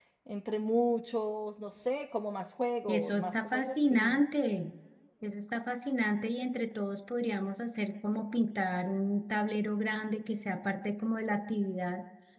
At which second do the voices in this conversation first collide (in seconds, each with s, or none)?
2.9 s